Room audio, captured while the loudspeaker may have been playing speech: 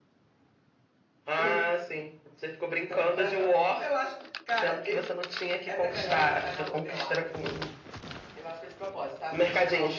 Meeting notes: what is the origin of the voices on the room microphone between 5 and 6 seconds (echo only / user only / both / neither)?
both